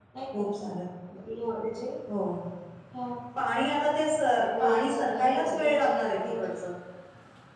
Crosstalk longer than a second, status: present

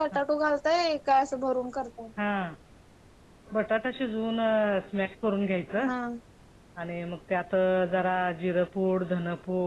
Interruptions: none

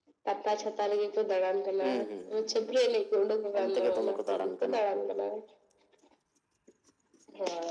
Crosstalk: present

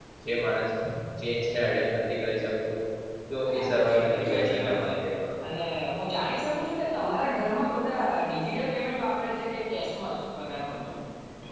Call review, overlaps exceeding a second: present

